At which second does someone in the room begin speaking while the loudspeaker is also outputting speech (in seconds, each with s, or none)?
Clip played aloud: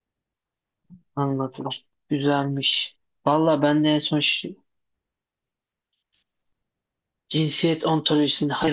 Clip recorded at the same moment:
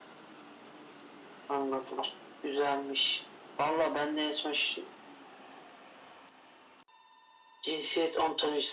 none